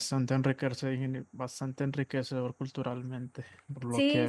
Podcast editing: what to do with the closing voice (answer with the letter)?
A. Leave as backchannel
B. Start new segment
B